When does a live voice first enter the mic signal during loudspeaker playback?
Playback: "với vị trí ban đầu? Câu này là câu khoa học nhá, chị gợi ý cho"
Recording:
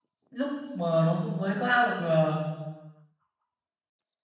0.3 s

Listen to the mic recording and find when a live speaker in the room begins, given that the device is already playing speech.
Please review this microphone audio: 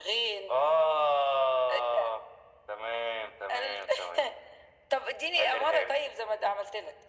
none

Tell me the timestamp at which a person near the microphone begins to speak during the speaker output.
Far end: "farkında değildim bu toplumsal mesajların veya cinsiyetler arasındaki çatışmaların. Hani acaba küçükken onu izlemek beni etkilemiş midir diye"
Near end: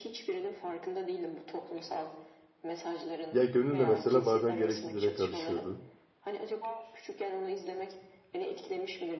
3.3 s

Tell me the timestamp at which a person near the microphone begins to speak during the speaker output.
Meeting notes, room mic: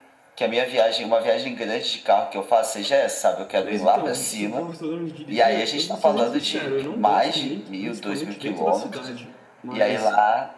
3.6 s

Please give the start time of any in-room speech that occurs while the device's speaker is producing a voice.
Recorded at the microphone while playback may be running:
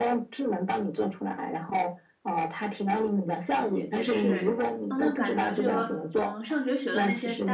3.5 s

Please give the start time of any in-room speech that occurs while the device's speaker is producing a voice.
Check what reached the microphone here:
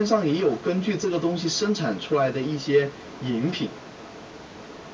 none

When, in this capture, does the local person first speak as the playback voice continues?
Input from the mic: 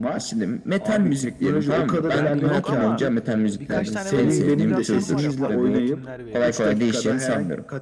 2.1 s

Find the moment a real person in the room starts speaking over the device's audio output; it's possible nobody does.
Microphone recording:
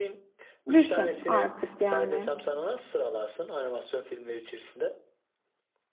0.7 s

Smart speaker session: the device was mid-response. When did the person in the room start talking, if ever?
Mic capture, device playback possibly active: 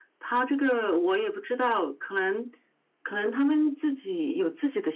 none

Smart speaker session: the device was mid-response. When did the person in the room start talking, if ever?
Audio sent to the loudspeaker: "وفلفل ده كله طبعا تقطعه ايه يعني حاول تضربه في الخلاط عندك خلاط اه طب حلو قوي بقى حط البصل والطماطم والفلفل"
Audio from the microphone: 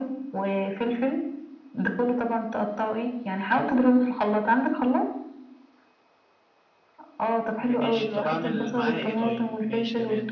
7.6 s

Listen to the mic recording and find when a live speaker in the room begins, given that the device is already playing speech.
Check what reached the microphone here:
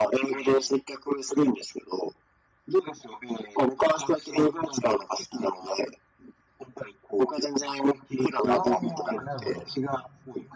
8.5 s

